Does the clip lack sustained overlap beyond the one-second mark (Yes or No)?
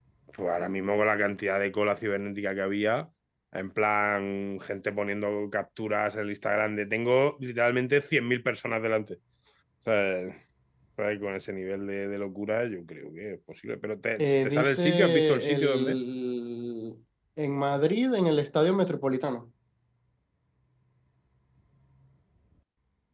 No